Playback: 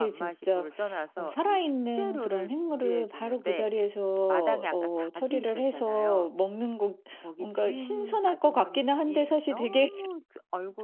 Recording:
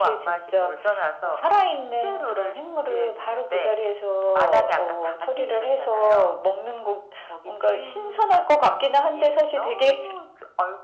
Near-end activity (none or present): none